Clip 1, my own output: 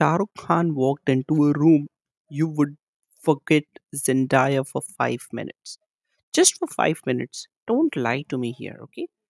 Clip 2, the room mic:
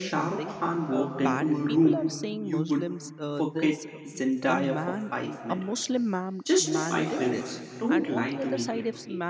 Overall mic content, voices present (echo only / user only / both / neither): both